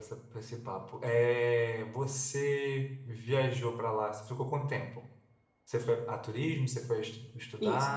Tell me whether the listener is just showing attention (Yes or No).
No